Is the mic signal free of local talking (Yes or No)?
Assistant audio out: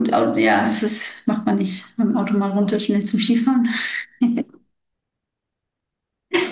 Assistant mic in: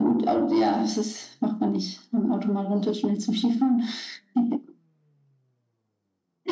Yes